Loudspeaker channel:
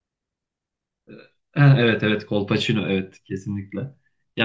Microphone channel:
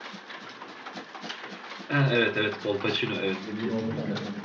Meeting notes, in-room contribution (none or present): present